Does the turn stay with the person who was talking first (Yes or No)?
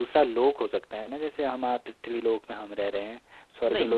Yes